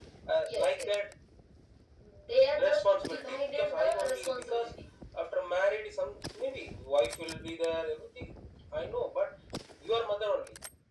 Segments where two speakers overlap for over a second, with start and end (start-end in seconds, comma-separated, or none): 2.6-4.7